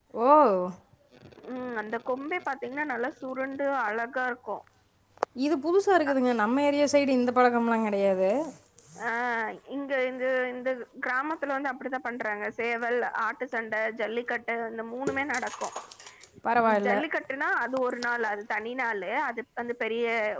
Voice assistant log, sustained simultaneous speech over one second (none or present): none